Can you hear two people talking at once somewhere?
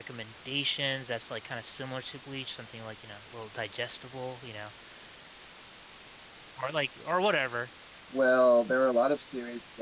No

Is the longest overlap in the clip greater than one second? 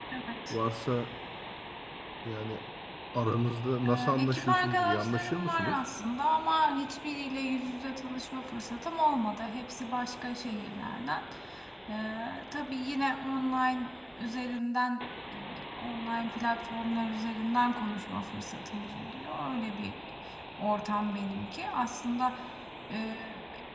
Yes, from 3.8 s

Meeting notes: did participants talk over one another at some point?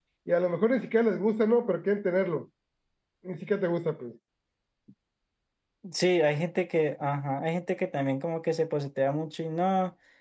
No

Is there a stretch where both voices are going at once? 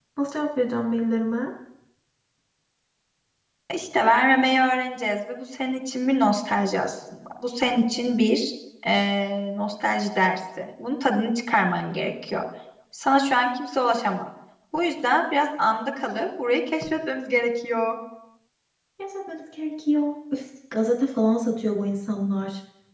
No

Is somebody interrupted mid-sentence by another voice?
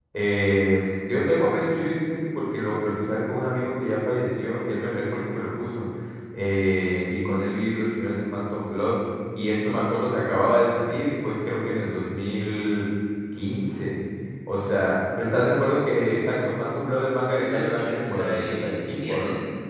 Yes, from 17.4 s

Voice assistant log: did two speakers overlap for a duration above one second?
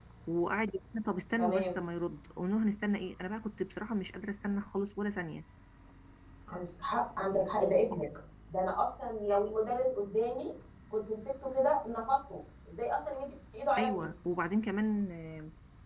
No

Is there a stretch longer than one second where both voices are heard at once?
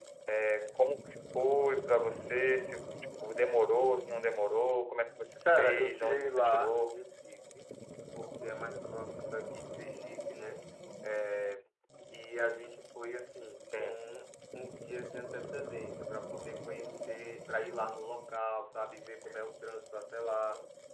Yes, from 5.6 s

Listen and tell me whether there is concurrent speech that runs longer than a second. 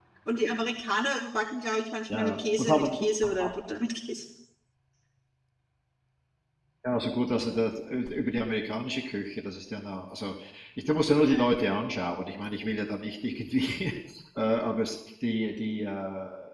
Yes, from 2.1 s

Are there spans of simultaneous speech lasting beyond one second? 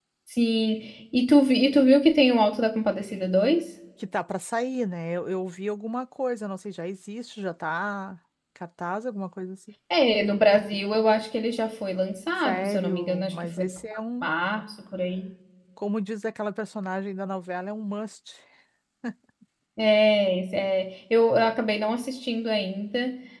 Yes, from 12.4 s

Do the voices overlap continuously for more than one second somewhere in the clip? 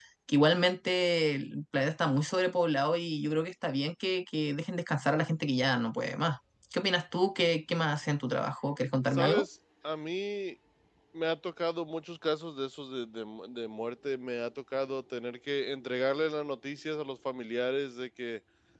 No

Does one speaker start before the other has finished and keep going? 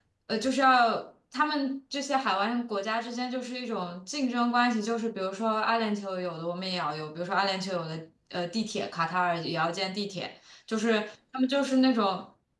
No

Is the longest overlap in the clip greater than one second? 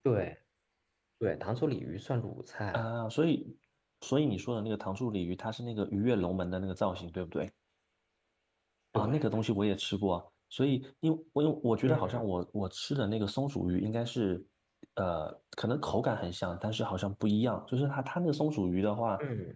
No

